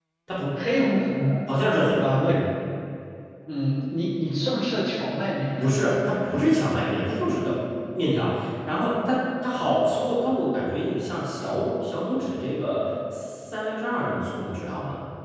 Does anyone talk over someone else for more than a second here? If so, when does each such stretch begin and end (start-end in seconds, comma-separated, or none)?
none